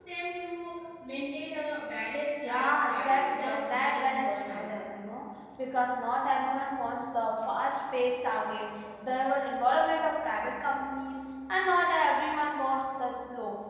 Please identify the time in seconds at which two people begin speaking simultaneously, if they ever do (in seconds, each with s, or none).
2.4 s